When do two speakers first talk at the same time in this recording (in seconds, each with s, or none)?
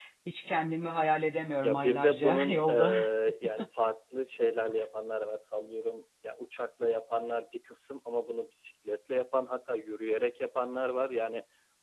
1.6 s